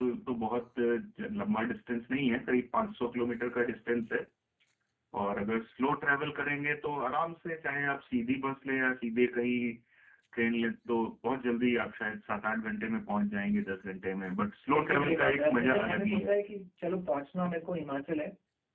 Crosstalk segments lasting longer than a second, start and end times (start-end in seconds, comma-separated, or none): 14.7-16.4